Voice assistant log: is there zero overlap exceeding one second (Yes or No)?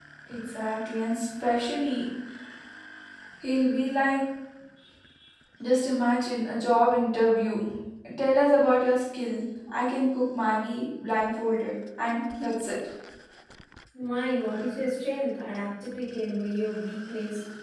Yes